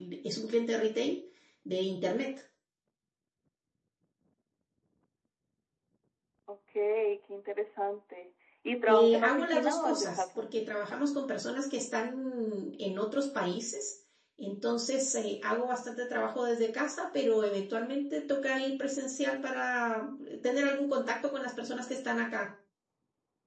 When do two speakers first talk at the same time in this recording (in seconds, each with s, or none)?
8.9 s